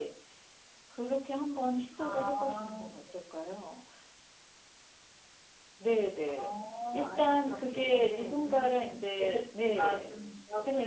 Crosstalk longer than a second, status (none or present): present